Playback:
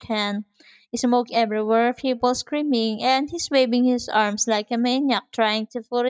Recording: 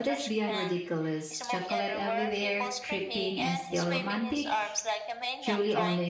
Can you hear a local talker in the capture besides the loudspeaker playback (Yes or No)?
Yes